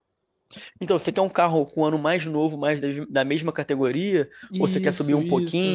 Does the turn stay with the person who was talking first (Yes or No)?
No